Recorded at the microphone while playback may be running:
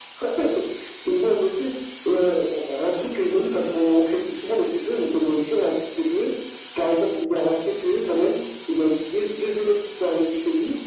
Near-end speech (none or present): none